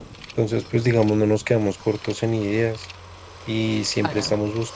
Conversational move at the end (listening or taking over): listening